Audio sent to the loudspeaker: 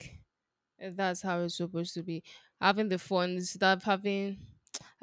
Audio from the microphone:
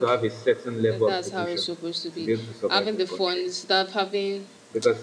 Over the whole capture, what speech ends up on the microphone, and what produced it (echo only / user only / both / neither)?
both